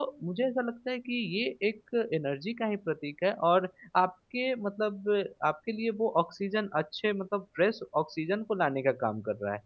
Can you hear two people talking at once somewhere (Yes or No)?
No